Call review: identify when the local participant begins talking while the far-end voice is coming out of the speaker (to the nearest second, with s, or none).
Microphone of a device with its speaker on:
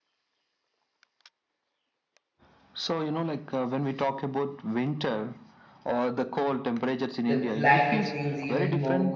7 s